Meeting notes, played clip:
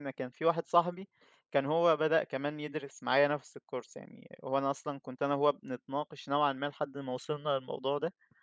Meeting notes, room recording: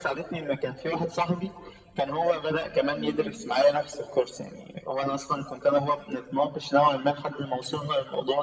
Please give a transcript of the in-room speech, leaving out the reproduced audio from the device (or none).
إمم.